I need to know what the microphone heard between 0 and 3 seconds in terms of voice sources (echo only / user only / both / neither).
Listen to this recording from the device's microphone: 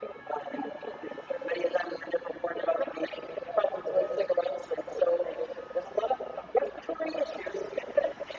echo only